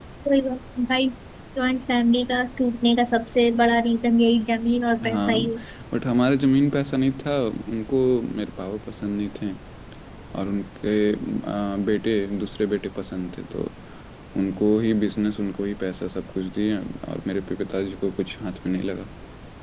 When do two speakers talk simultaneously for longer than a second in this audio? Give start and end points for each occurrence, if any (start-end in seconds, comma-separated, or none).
none